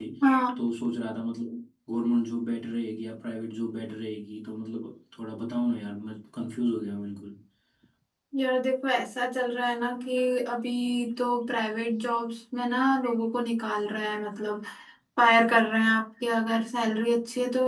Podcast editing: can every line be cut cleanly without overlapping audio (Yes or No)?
Yes